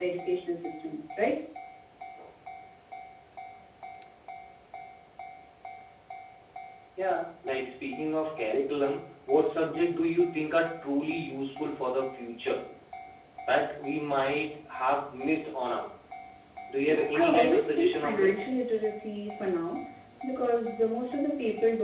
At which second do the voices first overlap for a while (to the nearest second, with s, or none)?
17 s